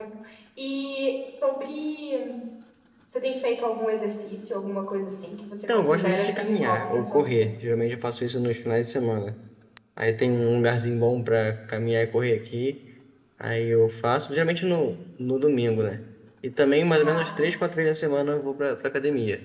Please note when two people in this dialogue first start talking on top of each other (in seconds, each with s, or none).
5.7 s